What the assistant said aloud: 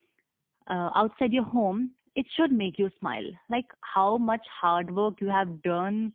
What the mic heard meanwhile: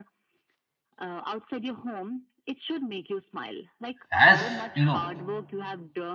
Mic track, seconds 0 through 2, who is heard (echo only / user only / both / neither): echo only